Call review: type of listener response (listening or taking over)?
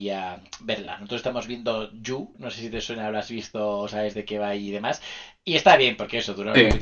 listening